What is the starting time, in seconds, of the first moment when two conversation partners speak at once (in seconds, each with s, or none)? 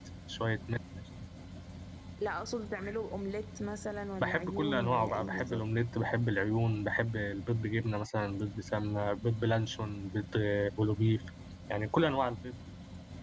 4.2 s